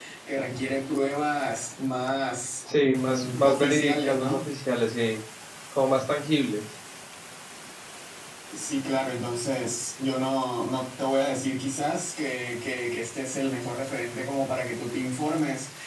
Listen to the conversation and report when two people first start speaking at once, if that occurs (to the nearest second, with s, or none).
3 s